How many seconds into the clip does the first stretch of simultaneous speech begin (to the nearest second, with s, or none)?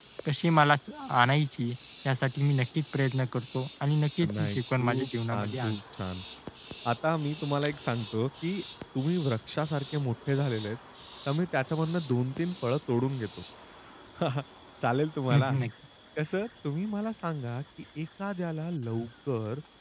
4 s